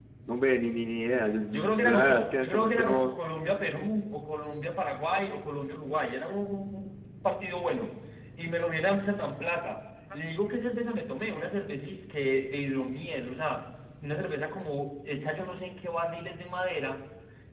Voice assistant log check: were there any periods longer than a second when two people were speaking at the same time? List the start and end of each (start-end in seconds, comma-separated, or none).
1.5-3.1